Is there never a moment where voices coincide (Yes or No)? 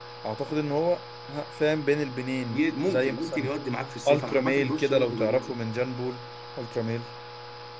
No